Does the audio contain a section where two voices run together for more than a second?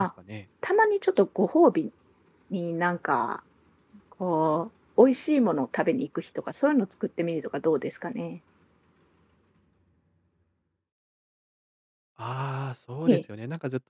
No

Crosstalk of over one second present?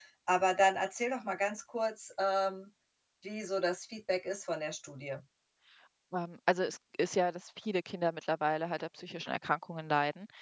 No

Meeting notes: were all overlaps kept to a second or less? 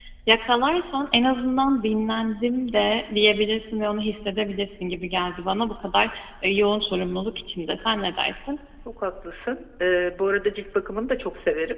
Yes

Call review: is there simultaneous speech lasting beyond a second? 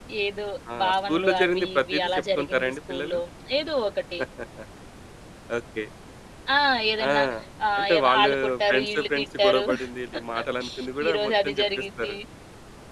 Yes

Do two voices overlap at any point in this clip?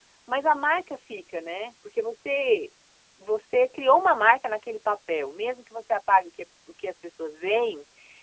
No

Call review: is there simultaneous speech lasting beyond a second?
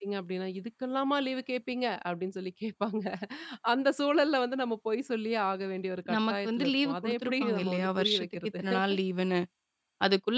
Yes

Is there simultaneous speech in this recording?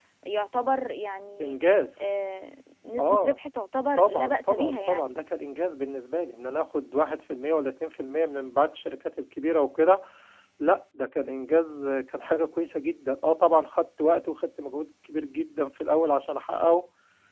Yes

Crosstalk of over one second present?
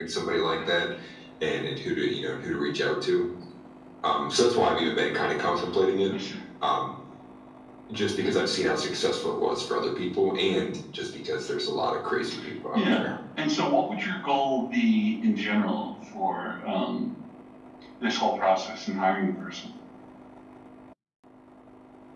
No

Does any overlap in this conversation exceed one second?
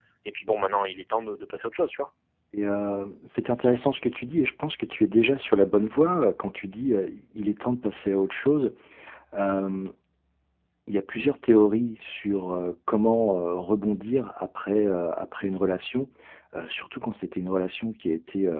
No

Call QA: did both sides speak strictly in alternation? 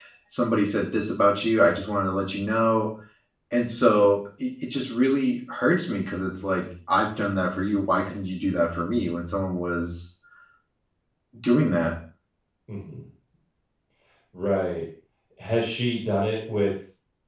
Yes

